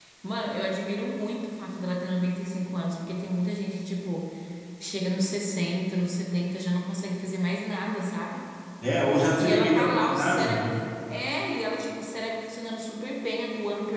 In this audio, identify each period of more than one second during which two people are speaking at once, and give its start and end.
9.4-10.7

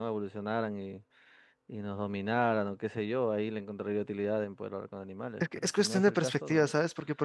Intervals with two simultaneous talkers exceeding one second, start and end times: 5.4-6.7

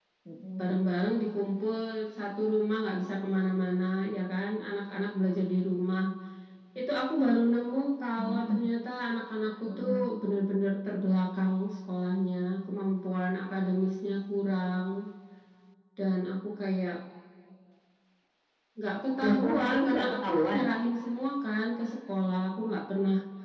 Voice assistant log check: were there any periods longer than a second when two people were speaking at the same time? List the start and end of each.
19.2-20.6

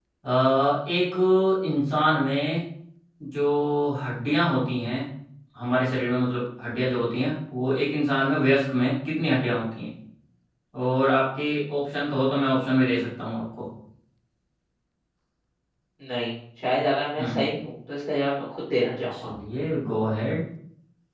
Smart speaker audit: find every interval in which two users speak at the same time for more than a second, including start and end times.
none

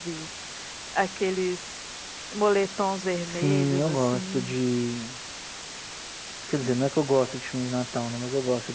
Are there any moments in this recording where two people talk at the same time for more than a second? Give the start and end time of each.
3.3-4.5

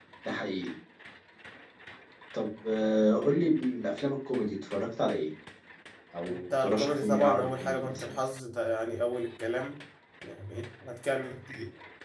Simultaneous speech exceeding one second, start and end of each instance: 6.3-8.1

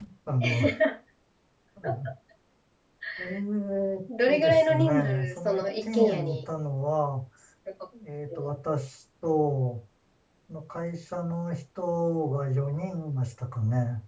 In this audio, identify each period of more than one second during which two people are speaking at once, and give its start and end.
4.3-6.4

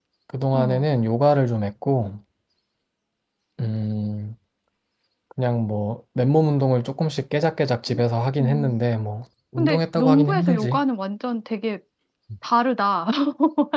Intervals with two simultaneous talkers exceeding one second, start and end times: 9.6-10.8

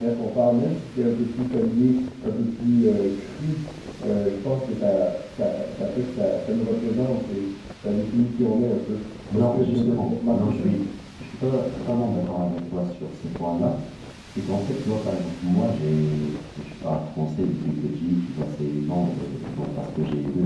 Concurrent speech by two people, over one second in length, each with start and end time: 9.3-10.6

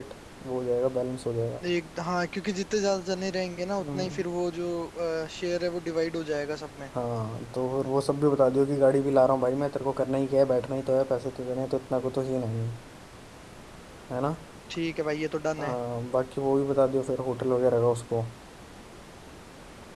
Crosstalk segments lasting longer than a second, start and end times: none

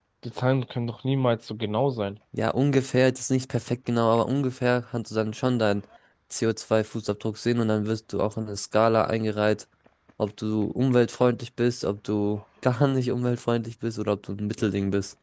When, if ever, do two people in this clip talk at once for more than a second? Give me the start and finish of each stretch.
none

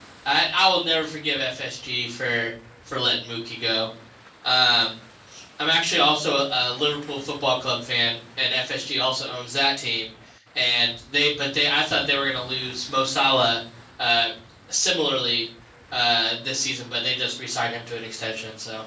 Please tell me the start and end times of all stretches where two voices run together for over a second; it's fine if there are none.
none

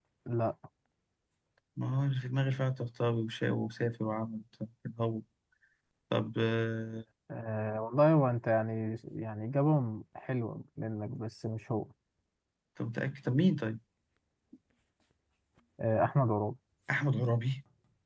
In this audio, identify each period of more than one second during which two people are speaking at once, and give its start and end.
none

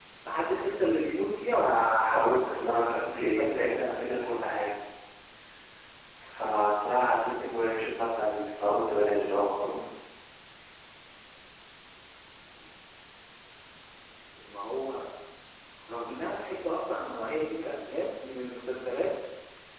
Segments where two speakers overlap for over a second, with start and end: 1.5-3.8

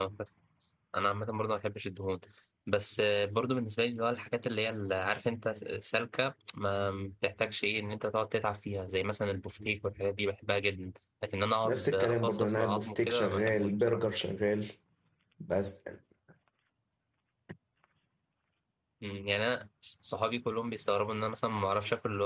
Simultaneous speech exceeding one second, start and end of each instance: 11.7-14.0

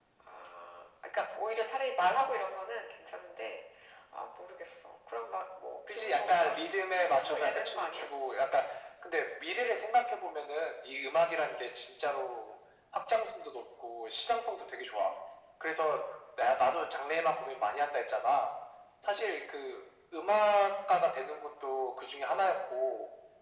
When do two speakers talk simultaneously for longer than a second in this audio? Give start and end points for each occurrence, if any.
5.9-8.1

